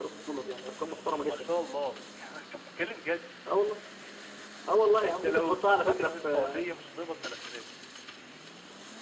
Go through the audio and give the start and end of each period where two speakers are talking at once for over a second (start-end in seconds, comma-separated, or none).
5.0-6.6